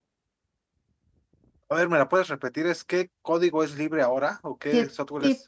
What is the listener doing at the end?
taking over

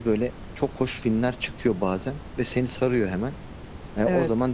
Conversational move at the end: listening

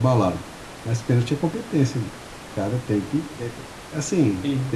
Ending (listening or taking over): listening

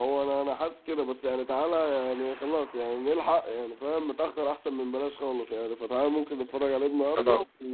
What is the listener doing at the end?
listening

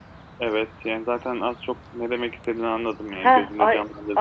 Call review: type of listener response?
taking over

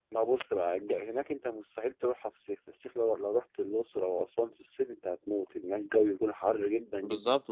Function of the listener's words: taking over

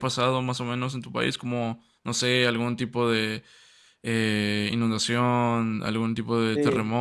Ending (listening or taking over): taking over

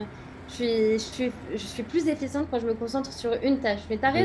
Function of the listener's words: taking over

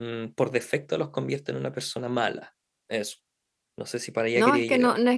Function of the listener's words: taking over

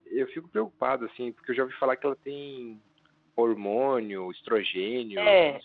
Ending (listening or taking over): taking over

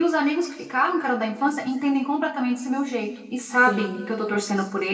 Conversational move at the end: listening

